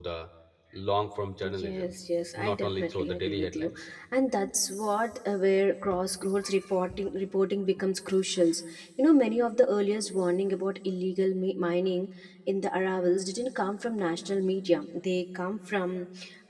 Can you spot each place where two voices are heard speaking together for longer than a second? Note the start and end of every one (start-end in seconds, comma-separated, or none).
2.4-3.7